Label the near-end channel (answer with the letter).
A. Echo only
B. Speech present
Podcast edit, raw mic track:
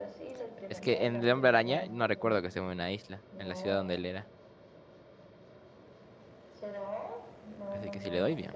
B